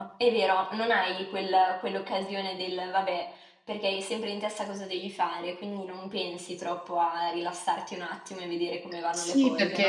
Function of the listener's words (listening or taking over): taking over